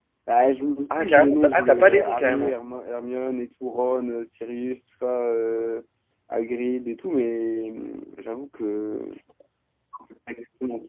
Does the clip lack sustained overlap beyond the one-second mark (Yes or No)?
No